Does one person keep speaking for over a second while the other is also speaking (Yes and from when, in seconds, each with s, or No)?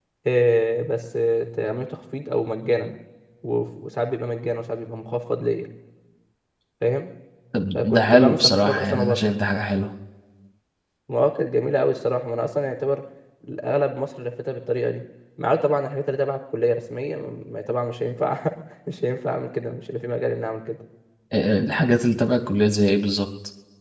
Yes, from 7.7 s